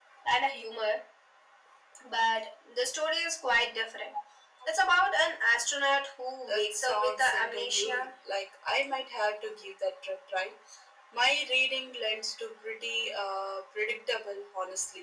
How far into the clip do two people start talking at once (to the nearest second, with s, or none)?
6 s